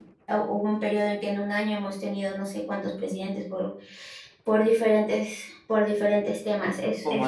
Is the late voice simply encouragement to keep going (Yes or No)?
No